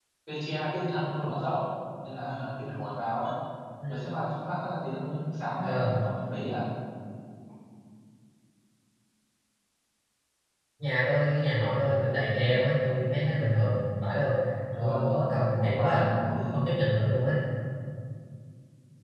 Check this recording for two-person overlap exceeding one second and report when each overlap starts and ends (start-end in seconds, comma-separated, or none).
14.8-16.1